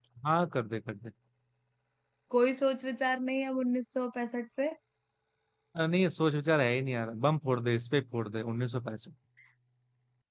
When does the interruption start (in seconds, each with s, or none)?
none